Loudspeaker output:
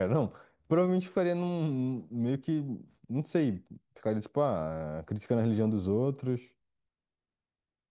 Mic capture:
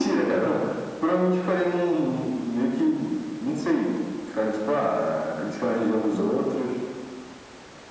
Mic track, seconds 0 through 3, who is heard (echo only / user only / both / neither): echo only